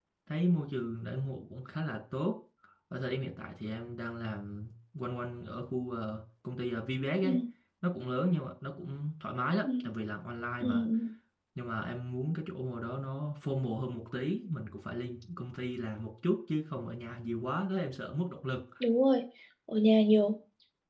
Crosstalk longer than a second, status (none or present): none